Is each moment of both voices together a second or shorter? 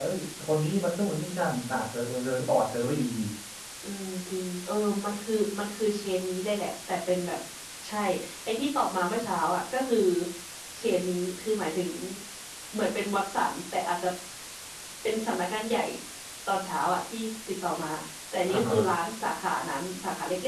Yes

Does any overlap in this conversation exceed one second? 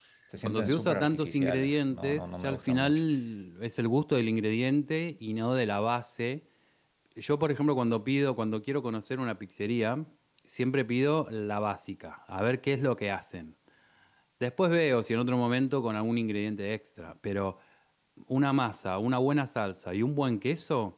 Yes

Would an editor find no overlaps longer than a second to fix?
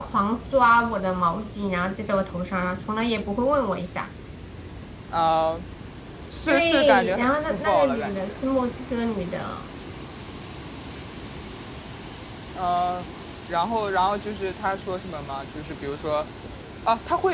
No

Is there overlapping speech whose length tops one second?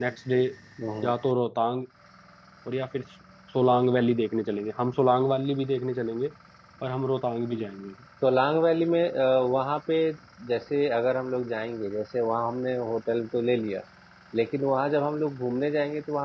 No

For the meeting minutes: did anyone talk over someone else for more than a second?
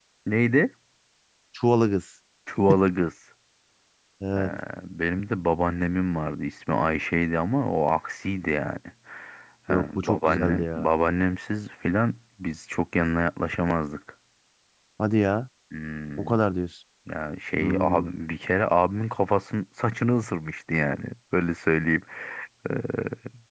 Yes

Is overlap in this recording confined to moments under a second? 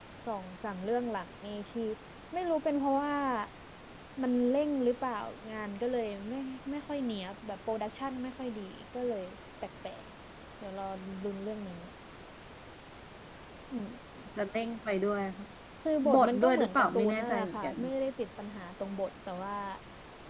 No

